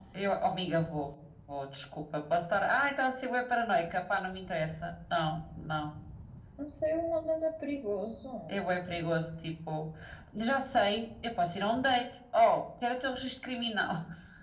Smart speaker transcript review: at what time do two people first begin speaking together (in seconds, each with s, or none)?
none